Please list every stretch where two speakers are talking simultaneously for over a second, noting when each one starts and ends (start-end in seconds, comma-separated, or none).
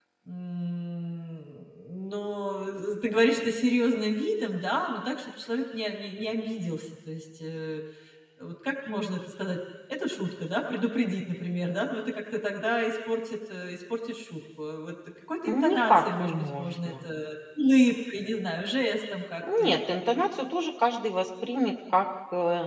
15.7-17.0